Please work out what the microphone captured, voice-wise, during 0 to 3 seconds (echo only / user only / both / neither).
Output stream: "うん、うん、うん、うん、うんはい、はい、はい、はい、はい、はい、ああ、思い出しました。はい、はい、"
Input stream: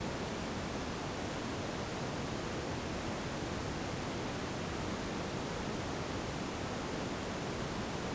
neither